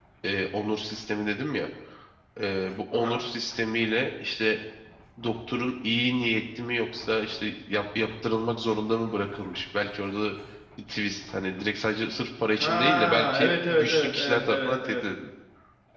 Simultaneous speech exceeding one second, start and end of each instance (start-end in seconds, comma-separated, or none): 12.6-15.0